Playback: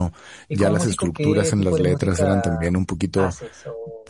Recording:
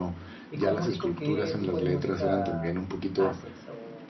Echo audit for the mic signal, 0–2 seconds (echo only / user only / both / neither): echo only